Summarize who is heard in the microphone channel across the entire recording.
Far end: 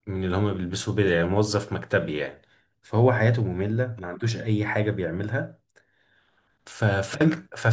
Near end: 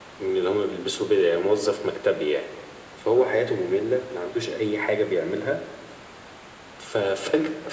echo only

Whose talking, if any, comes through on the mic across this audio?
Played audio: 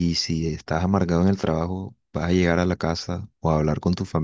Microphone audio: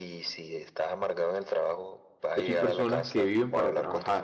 both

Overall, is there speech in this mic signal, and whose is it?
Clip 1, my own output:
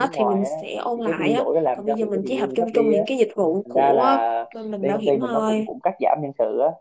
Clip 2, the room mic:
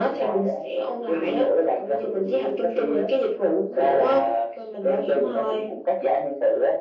echo only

